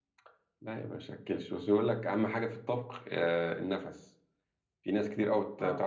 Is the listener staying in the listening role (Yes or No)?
Yes